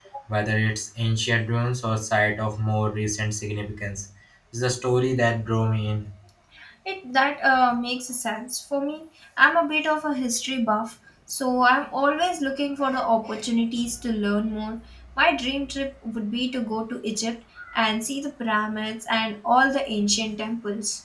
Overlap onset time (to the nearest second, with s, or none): none